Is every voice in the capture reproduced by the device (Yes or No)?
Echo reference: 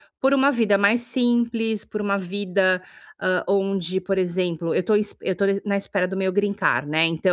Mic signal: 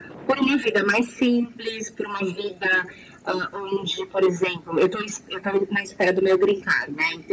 Yes